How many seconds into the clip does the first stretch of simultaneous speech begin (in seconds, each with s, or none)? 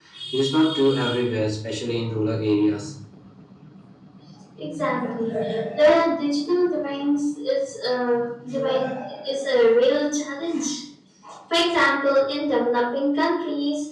none